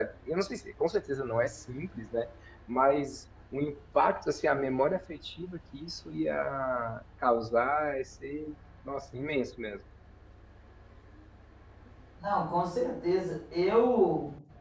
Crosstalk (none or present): none